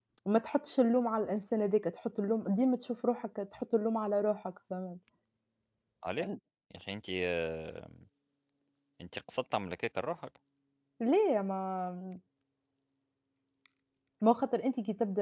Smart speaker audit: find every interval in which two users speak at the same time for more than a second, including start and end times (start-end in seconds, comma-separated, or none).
none